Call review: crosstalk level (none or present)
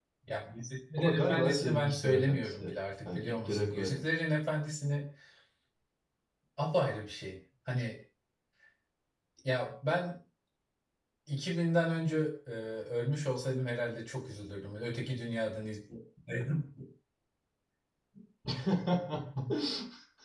present